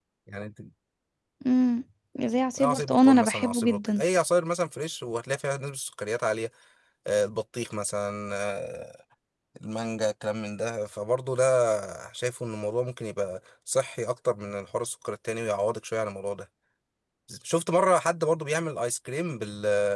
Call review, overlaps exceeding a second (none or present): present